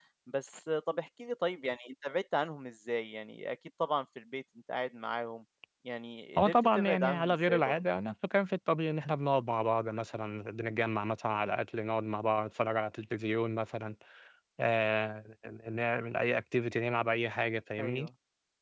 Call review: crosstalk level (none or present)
present